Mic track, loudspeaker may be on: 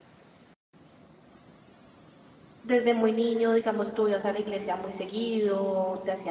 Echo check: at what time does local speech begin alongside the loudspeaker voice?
2.6 s

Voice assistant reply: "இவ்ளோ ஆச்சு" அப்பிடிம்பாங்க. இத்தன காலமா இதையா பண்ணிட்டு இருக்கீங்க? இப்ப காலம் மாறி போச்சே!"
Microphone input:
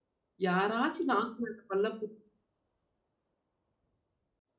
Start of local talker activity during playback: 0.5 s

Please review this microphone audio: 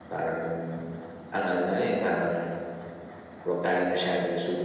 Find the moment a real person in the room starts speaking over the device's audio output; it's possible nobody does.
none

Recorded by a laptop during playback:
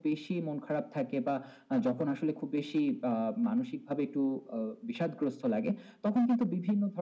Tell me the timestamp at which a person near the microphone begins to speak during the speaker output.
none

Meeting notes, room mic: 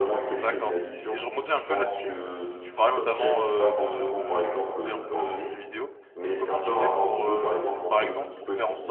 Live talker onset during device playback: 0.3 s

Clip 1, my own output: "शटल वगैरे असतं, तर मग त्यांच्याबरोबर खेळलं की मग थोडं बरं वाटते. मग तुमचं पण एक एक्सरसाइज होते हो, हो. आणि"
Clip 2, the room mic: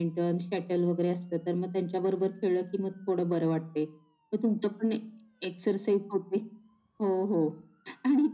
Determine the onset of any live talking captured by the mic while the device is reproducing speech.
none

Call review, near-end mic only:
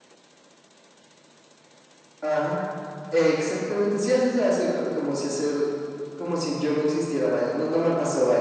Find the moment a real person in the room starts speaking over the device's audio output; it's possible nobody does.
none

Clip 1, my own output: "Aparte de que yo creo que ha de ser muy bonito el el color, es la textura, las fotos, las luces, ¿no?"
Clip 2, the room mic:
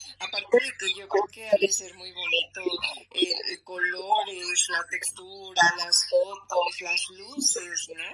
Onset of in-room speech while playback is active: none

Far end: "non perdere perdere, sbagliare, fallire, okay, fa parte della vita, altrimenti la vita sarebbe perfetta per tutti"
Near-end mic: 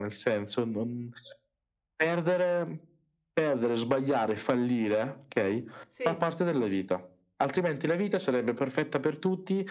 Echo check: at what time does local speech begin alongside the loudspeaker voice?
5.9 s

